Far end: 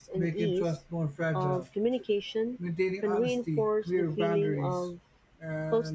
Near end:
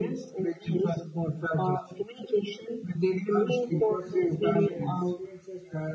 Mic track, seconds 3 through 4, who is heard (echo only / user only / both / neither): both